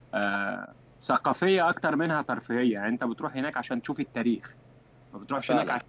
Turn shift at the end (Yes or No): No